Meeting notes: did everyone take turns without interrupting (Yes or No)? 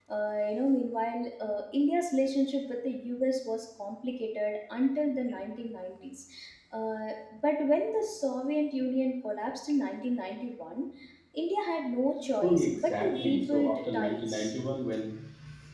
No